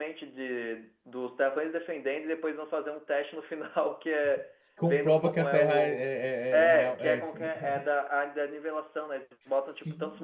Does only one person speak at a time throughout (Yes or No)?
No